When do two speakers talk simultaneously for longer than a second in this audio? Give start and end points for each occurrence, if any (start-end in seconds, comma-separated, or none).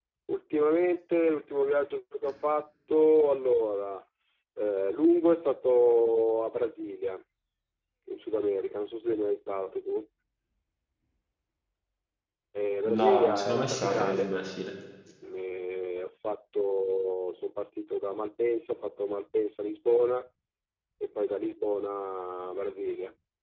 12.9-14.3